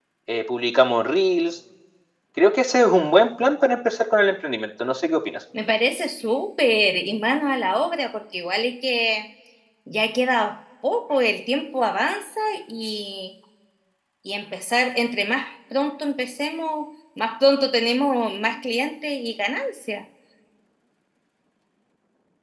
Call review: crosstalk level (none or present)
none